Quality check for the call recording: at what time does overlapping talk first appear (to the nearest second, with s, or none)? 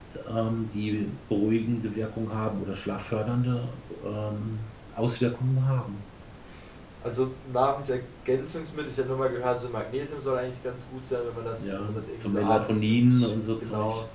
12 s